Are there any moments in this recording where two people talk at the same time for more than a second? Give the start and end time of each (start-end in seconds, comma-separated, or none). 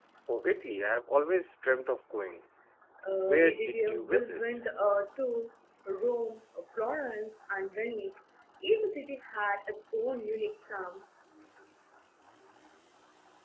3.1-4.4